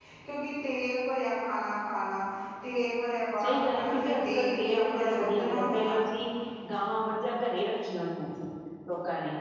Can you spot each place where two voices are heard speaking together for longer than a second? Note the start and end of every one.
3.4-6.0

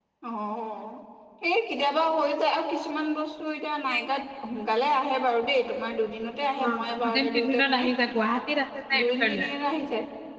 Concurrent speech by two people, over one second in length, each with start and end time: 6.6-7.8

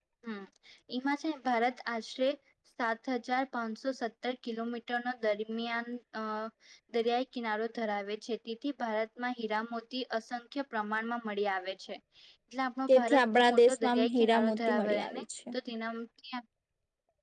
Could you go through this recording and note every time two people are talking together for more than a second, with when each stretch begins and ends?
13.0-15.2

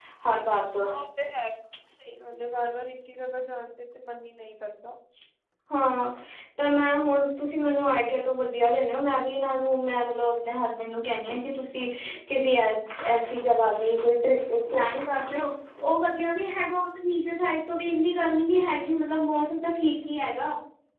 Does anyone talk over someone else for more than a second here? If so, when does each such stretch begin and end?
none

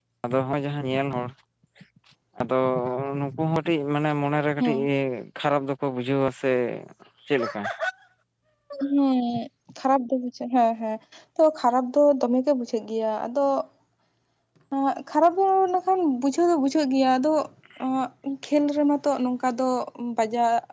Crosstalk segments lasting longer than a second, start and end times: none

